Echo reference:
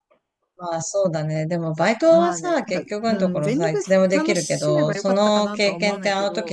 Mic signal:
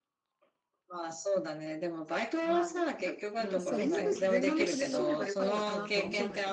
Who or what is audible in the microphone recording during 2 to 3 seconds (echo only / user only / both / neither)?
echo only